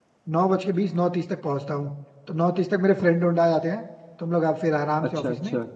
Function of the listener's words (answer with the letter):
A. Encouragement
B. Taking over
A